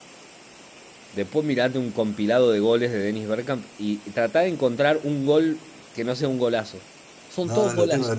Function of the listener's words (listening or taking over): taking over